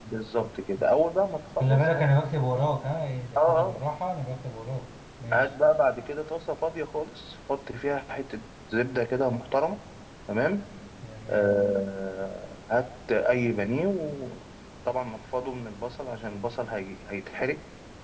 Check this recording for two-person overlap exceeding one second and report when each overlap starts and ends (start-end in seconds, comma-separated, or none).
none